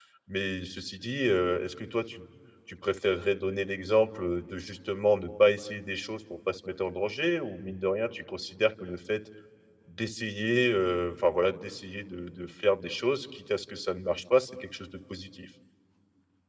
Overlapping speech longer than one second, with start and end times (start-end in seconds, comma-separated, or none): none